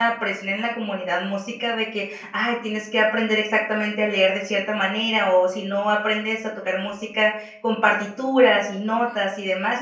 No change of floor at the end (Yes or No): Yes